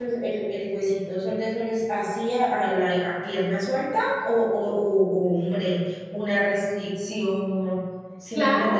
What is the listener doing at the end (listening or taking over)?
taking over